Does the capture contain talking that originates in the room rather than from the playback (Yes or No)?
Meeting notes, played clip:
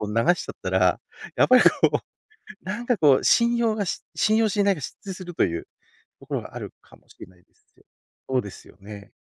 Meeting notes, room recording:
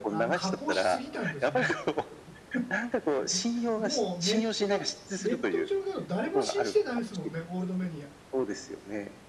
Yes